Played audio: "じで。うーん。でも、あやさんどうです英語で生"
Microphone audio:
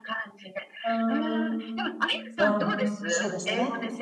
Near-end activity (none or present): present